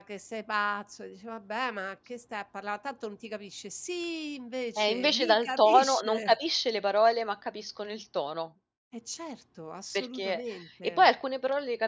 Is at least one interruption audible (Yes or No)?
Yes